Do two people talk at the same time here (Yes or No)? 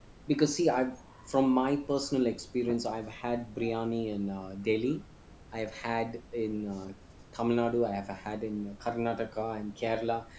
No